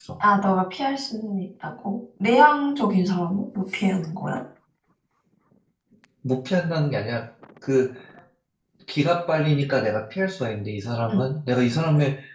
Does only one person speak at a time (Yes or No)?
Yes